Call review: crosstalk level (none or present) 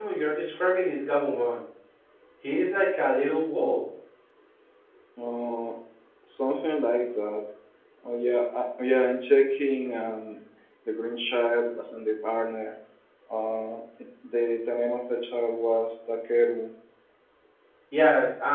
none